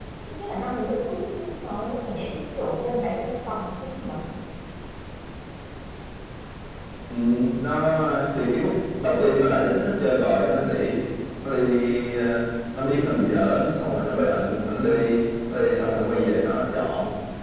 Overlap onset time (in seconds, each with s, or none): none